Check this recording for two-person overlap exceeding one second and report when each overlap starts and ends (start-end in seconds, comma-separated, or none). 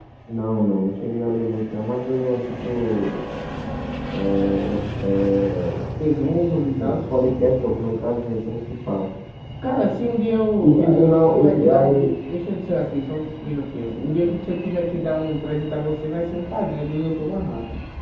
10.6-12.1